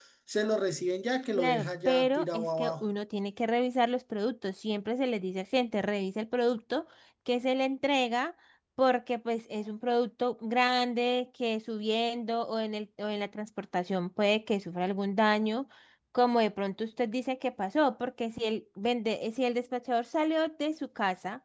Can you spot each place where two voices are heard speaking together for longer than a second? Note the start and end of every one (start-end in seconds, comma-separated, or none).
1.3-2.8